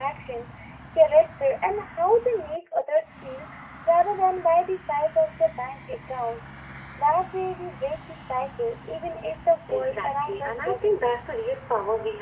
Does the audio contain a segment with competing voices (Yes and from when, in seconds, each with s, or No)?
Yes, from 9.7 s